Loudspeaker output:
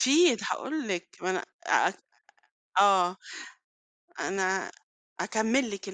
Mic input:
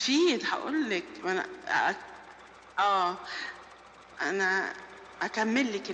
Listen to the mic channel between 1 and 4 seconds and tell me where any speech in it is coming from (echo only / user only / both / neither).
echo only